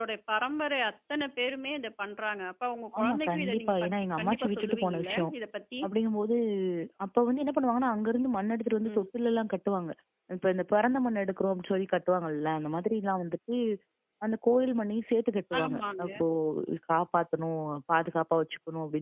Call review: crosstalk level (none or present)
present